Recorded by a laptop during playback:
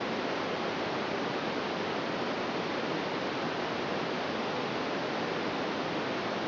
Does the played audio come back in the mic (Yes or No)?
No